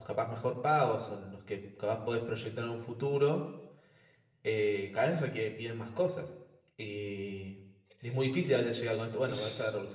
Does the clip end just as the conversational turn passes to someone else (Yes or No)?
No